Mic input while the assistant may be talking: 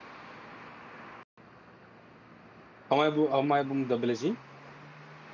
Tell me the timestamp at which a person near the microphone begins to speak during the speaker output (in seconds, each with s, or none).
2.9 s